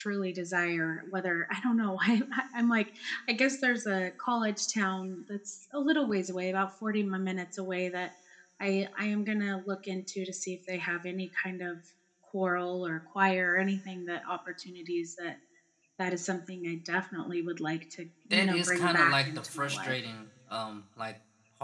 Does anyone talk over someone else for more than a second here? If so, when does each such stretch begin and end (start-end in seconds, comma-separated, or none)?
18.3-20.0